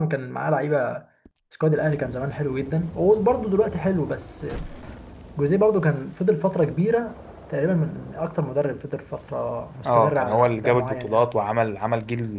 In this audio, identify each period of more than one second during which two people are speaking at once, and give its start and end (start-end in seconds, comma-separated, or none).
9.9-11.2